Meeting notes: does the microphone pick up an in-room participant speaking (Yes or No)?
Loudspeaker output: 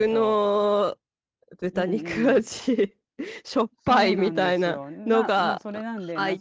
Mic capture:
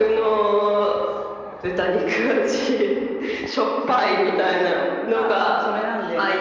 No